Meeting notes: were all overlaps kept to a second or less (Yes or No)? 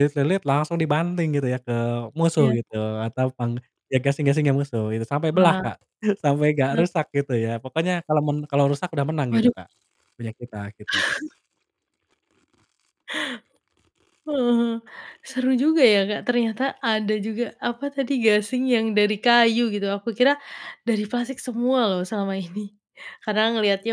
Yes